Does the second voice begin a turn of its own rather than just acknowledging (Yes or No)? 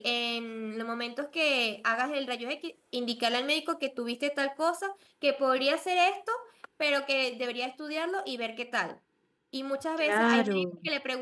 No